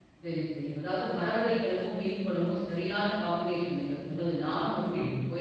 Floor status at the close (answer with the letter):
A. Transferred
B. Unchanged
B